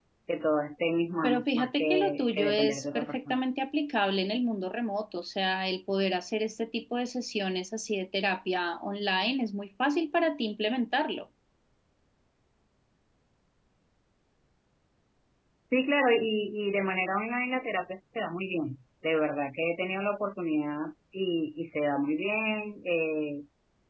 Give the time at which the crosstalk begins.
1.2 s

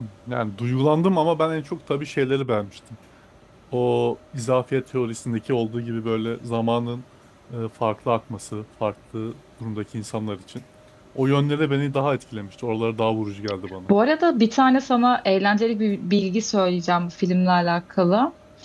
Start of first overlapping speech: none

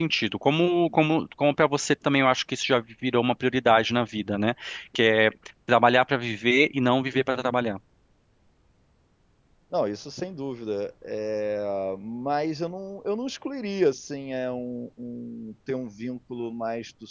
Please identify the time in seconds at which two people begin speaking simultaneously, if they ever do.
none

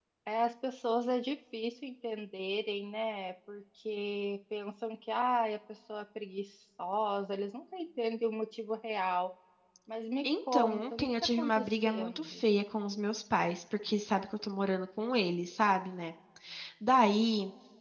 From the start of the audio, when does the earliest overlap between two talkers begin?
10.2 s

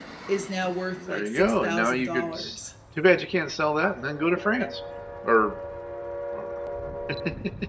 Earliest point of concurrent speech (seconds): 1.0 s

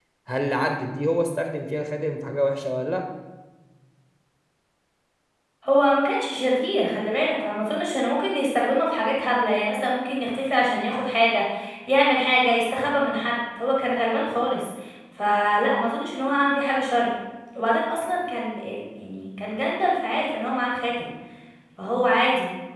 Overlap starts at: none

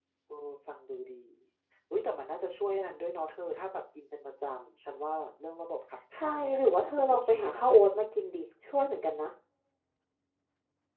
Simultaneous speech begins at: 6.1 s

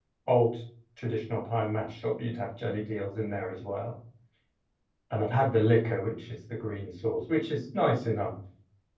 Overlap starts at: none

